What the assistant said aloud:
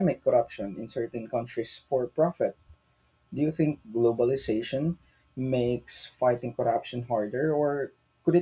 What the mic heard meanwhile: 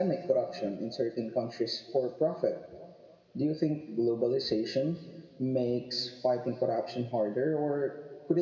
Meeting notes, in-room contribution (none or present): none